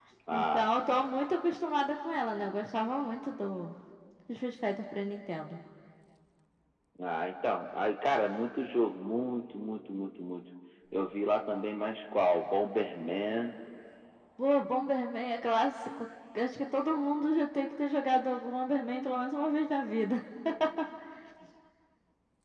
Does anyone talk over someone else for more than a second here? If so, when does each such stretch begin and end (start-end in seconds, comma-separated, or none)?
none